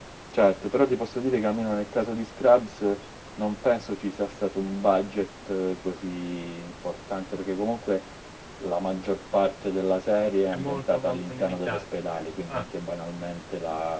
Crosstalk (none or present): present